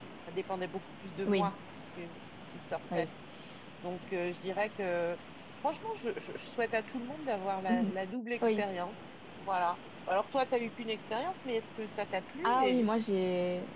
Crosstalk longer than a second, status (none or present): none